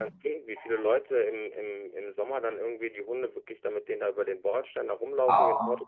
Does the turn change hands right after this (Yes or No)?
No